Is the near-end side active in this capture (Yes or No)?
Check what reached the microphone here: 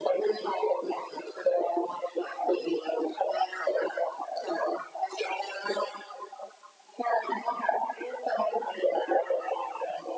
No